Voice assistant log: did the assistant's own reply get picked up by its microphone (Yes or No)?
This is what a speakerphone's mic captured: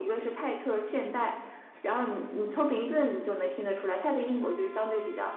Yes